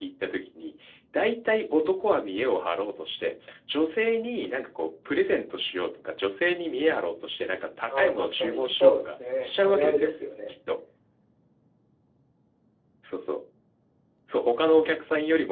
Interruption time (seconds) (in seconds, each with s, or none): 7.9 s